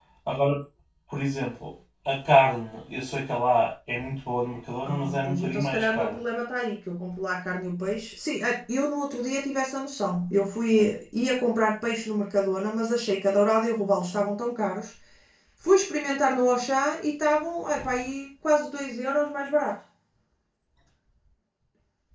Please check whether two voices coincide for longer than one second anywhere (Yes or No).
Yes